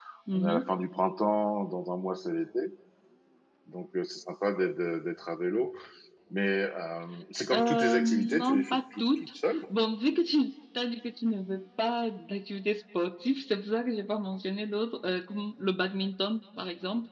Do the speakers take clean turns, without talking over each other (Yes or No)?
No